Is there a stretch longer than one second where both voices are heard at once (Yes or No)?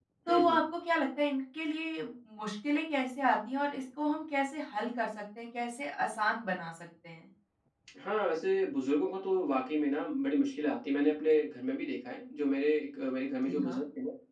No